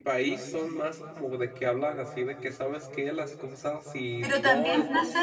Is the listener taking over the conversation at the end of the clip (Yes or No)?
Yes